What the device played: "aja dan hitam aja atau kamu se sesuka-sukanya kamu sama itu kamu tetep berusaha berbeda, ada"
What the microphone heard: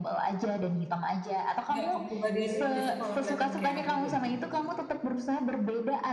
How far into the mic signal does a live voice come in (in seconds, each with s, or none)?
1.7 s